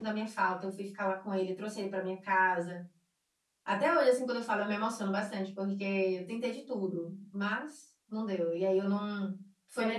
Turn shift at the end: Yes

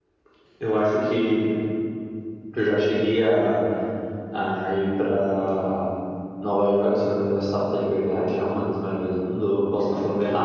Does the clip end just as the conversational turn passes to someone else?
Yes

